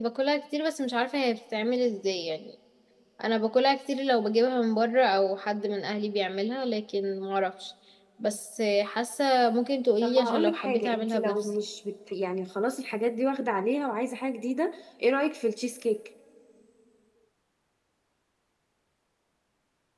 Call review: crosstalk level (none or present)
present